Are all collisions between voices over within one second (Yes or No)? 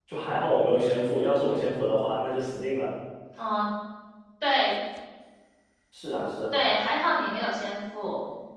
Yes